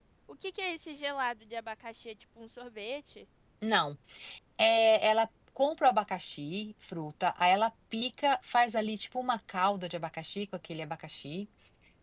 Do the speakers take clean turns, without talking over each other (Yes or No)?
Yes